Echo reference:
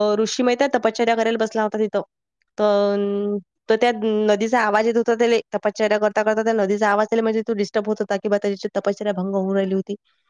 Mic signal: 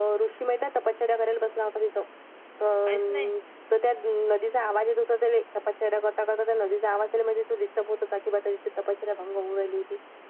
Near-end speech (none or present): present